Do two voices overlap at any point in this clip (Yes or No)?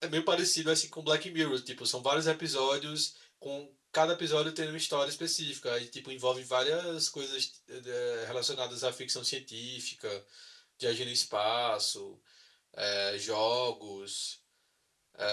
No